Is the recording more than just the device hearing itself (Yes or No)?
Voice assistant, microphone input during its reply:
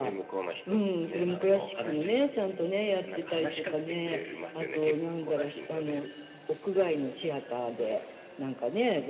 No